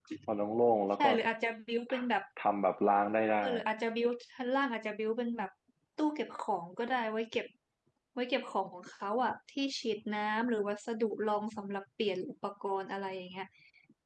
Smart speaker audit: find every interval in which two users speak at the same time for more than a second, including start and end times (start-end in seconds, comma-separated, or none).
none